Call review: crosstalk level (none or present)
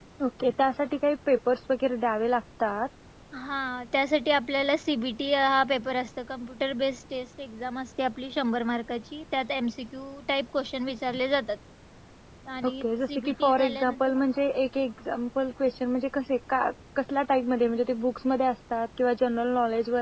present